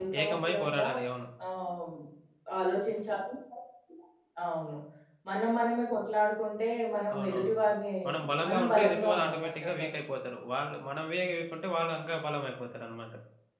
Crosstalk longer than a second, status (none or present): present